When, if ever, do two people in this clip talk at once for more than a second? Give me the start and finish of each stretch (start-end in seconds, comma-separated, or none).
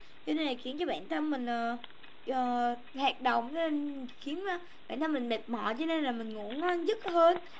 none